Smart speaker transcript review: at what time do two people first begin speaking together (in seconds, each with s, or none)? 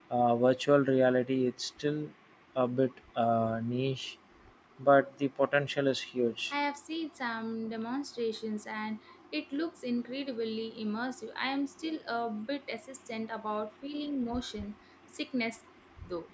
none